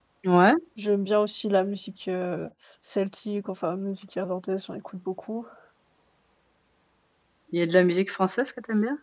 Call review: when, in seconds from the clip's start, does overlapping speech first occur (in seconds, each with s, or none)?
none